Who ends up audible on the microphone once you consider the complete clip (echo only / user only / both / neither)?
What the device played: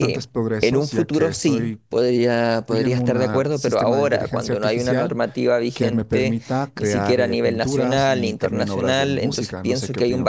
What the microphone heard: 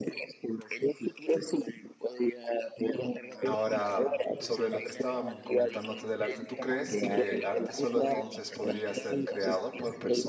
both